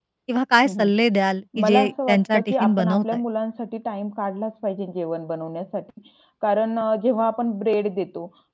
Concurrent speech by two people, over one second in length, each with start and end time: 1.6-3.2

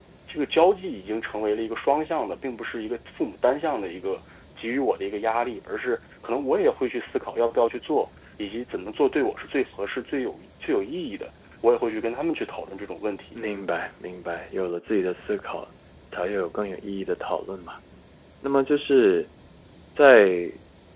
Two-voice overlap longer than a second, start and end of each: none

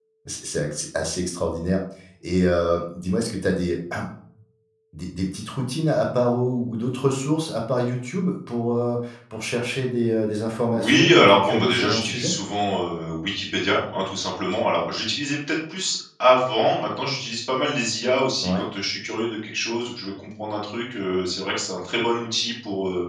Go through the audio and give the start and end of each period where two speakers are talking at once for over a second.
10.7-12.3

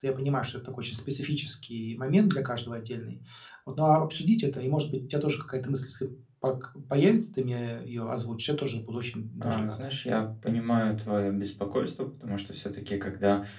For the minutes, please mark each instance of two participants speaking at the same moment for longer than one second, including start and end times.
none

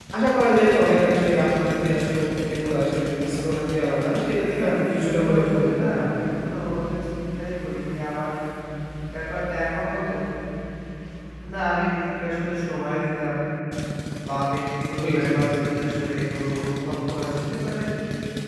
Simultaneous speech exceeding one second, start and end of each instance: 4.6-6.2

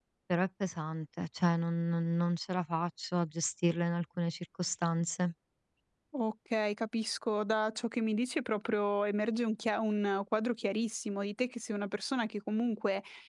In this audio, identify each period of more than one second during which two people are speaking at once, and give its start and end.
none

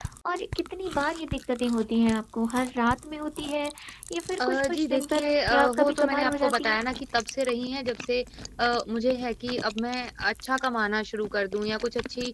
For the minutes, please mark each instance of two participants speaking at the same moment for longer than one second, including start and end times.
4.5-6.8

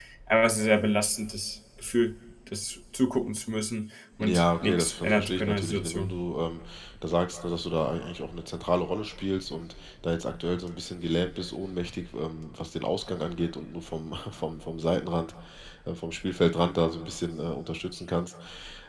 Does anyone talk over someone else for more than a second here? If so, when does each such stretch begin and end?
4.2-6.1

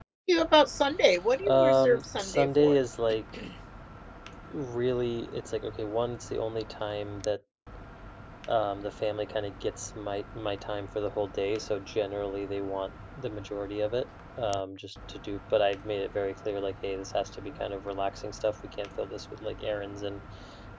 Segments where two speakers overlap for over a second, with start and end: 1.4-2.8

